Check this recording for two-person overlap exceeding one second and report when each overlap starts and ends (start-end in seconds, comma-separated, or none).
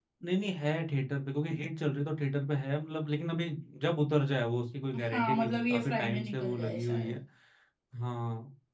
5.0-7.2